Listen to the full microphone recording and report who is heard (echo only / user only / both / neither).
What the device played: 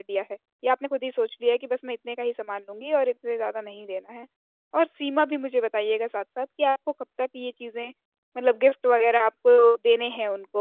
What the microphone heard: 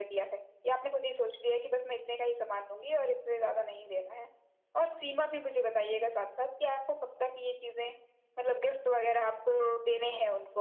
echo only